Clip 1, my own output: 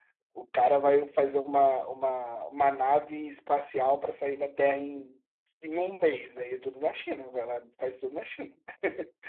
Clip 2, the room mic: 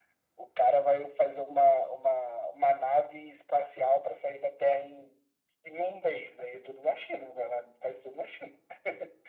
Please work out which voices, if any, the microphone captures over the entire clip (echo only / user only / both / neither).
echo only